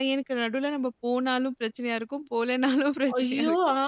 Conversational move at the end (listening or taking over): taking over